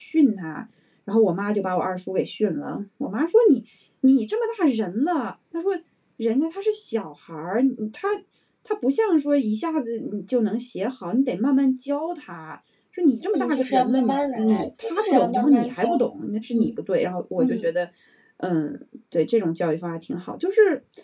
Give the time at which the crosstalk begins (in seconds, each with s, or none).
13.3 s